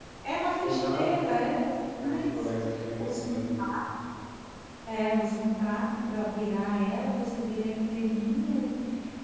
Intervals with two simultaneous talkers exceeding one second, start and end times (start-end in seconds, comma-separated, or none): none